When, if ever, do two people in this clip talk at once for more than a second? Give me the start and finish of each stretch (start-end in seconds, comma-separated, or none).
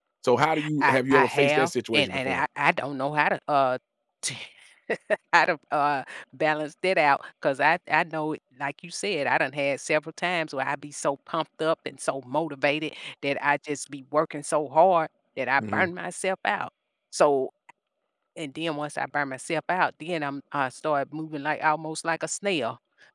0.8-2.4